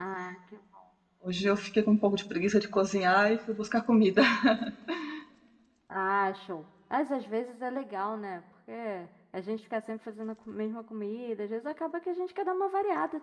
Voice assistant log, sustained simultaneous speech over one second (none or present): none